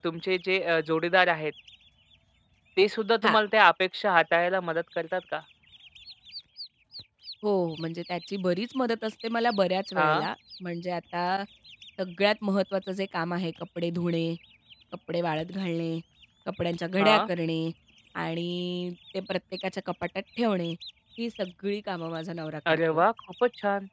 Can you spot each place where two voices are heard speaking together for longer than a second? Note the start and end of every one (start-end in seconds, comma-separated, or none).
none